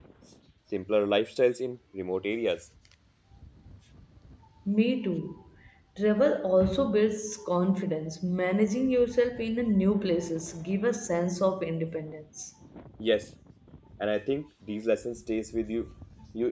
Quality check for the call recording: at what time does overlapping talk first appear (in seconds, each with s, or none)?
none